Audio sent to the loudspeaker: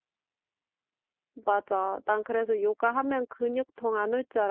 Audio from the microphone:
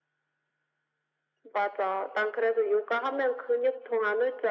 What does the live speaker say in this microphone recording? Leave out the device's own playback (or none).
none